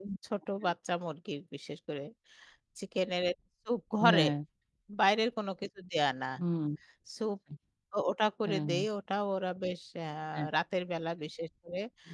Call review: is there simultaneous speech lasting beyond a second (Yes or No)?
No